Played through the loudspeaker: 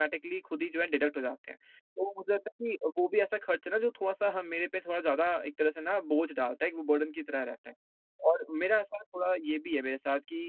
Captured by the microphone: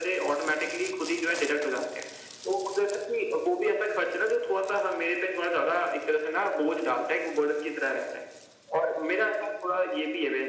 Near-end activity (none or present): none